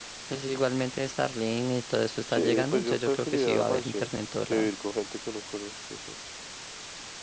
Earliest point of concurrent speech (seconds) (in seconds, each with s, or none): 2.3 s